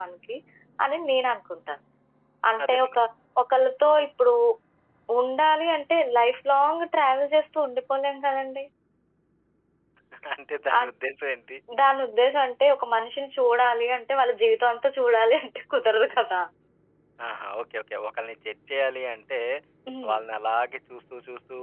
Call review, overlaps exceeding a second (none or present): none